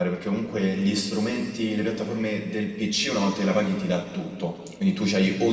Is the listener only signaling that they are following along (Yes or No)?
Yes